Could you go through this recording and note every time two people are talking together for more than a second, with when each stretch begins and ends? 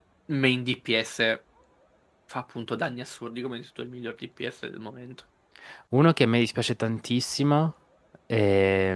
none

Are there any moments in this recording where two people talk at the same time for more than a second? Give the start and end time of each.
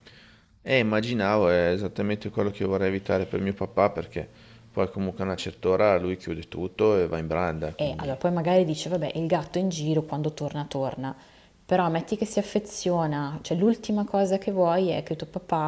none

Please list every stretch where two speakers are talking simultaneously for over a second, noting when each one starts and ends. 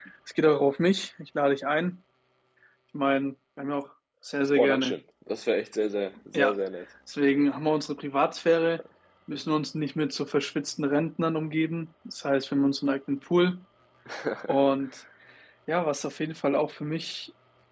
none

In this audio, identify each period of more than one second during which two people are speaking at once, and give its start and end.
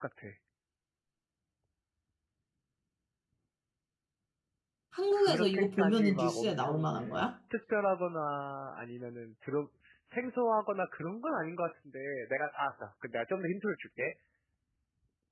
5.1-6.9

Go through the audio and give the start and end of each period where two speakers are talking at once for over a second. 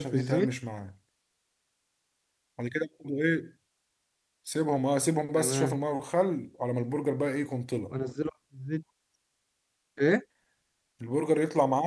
none

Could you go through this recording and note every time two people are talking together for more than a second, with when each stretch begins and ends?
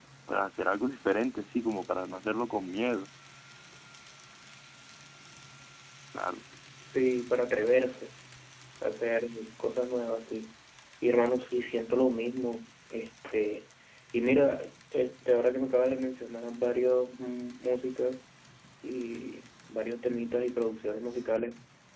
none

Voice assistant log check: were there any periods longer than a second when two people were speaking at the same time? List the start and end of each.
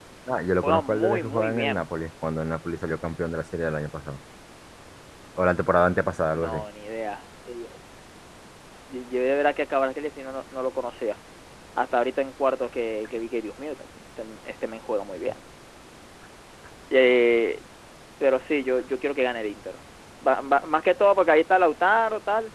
0.6-1.9

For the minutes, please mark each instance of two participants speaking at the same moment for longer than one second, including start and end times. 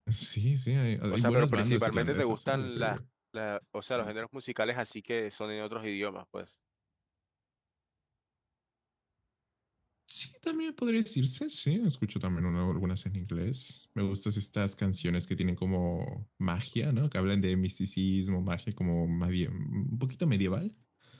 1.1-3.0

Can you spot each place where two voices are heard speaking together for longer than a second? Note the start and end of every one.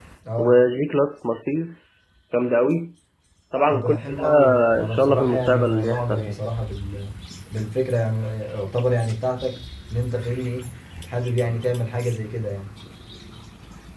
3.7-6.4

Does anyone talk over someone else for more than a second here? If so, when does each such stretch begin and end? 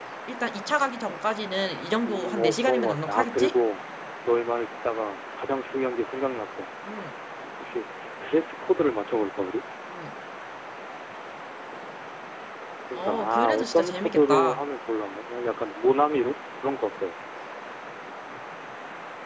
2.1-3.5, 12.9-14.6

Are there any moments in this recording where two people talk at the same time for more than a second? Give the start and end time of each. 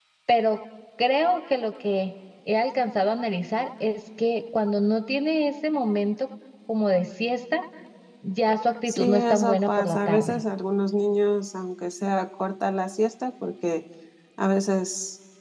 8.9-10.4

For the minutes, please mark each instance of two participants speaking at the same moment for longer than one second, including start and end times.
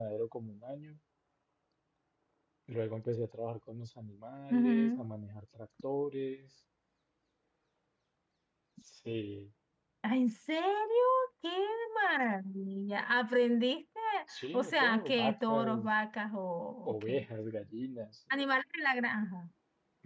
14.5-15.9

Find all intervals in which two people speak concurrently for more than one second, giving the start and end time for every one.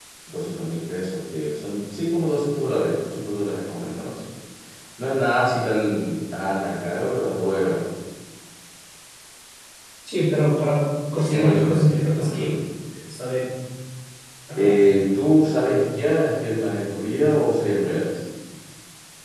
11.3-12.5

